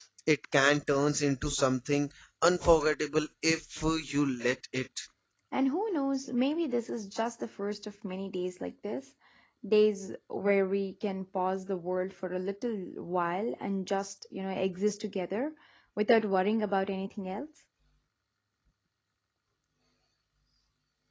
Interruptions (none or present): none